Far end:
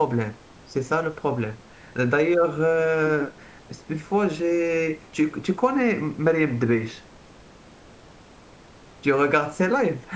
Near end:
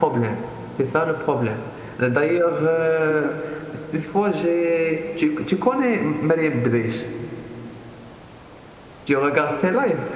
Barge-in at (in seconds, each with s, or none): none